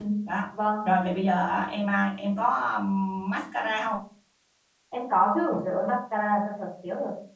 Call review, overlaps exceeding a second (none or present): none